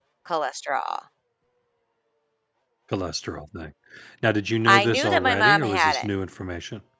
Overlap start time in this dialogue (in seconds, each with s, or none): 4.7 s